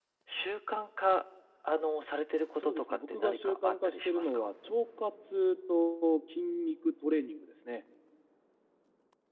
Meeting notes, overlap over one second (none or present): present